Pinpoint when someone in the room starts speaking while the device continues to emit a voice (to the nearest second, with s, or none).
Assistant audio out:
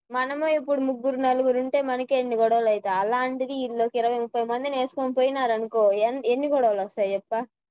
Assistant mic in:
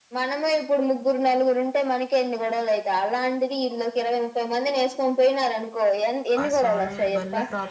6 s